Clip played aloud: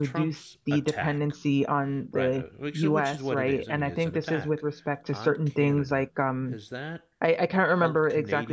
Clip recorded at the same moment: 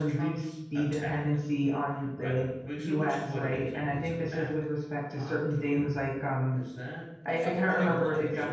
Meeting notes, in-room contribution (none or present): present